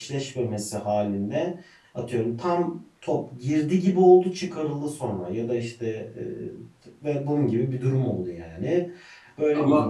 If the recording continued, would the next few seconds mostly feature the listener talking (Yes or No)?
No